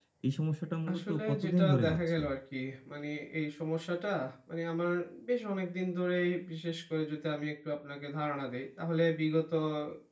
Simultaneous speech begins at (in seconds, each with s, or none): 0.9 s